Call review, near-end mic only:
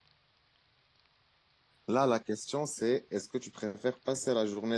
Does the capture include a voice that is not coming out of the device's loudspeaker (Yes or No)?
Yes